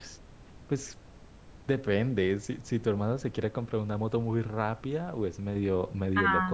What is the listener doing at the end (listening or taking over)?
listening